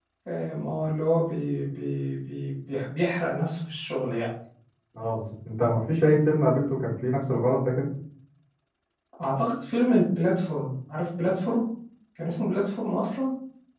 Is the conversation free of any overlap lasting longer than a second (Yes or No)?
Yes